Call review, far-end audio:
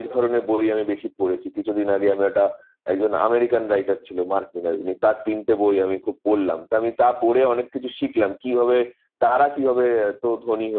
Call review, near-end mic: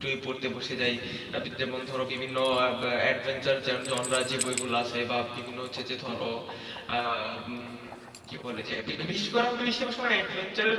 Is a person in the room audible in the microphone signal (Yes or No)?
Yes